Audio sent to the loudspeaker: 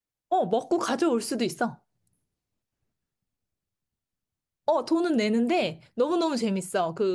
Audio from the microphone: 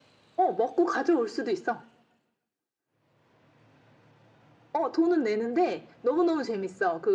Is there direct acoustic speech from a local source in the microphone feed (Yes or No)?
No